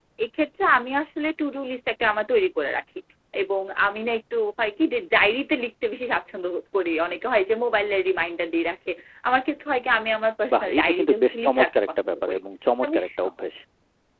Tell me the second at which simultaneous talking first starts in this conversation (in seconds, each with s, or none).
10.5 s